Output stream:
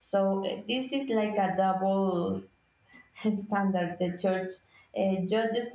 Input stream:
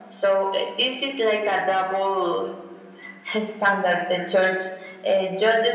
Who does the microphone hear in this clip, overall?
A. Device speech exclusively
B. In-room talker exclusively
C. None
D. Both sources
A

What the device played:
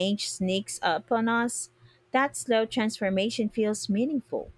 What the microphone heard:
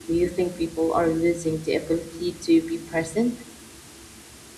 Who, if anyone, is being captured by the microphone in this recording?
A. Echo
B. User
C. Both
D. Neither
B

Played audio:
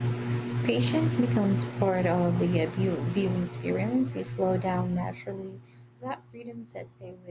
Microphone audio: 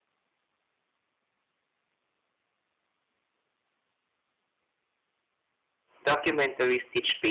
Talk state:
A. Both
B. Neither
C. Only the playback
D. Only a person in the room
D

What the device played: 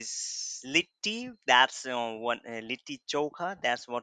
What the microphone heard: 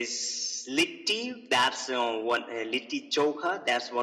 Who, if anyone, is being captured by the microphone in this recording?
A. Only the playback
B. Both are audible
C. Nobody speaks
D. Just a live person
A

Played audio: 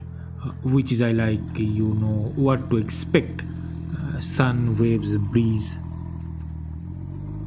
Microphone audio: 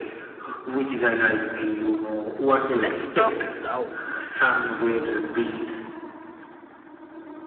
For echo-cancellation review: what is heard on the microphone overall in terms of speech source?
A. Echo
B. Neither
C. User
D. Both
D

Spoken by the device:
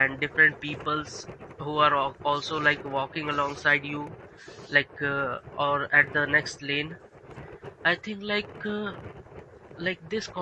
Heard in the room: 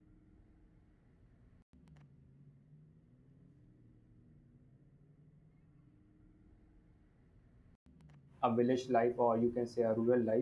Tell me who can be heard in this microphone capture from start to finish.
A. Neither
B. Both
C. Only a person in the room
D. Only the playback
C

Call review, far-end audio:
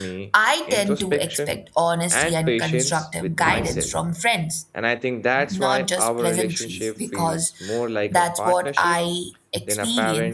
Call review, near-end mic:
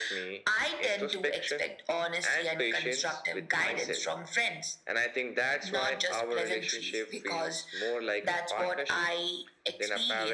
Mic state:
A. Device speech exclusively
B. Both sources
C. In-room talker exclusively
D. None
A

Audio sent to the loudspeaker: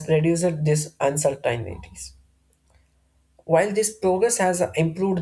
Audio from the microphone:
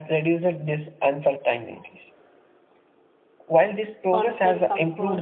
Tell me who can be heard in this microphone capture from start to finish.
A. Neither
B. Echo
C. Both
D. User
C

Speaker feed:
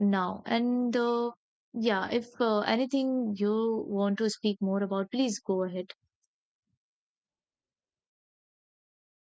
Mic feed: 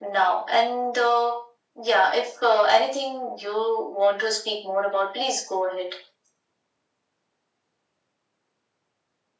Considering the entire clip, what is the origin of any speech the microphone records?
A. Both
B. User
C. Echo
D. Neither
C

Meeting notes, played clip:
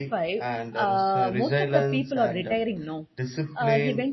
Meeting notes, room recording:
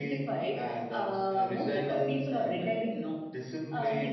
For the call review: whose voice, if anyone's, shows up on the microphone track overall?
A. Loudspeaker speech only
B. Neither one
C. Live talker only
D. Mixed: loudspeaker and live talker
A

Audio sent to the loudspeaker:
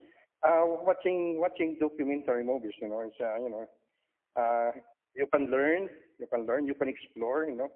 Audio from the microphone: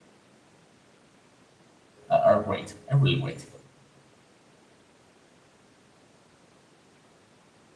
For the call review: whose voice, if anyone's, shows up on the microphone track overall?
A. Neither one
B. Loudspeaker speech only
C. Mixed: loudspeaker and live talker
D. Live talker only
D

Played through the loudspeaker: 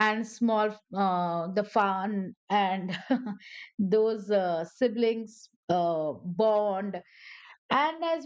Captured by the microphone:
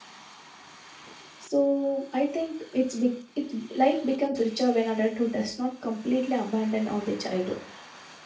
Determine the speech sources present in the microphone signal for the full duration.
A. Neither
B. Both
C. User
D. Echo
C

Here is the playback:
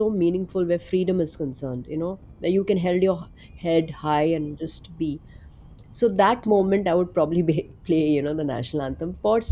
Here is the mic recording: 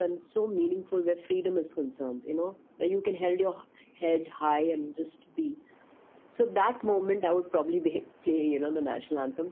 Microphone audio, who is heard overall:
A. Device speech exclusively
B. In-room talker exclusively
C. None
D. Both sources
A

